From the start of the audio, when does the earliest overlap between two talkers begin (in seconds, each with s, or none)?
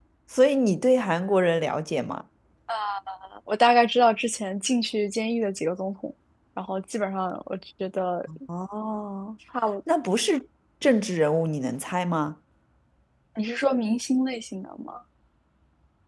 none